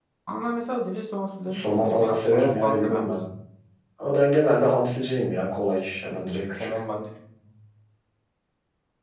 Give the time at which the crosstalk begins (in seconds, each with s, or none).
1.5 s